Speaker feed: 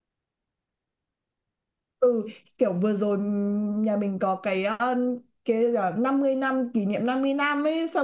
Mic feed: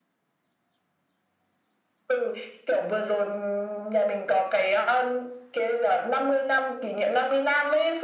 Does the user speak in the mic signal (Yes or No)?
No